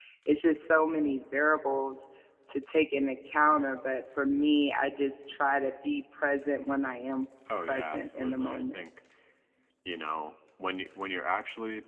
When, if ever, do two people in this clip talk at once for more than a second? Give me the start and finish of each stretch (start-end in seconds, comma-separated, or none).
7.6-8.8